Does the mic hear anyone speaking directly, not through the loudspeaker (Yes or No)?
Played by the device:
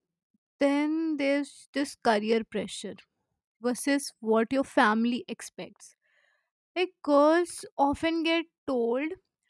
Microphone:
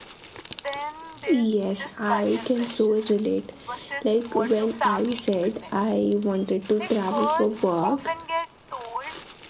Yes